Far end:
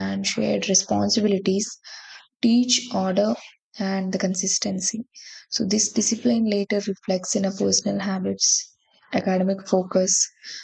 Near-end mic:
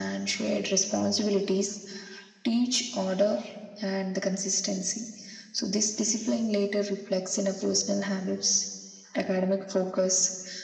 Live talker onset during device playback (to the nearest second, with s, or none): none